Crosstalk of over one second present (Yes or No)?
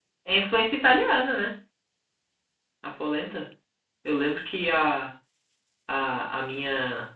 No